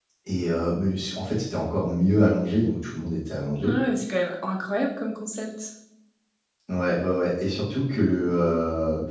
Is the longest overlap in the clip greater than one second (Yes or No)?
No